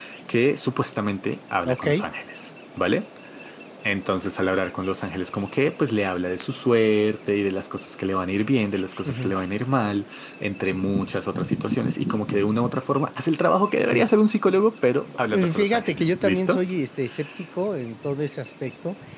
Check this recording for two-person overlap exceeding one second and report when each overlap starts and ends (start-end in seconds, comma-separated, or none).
15.3-16.6